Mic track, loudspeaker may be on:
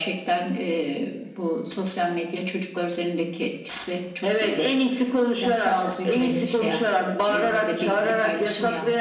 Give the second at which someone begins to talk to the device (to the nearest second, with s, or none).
6 s